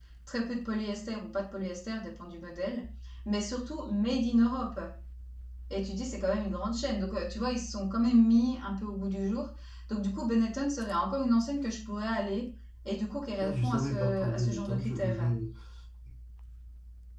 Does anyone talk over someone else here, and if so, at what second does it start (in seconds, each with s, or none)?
13.4 s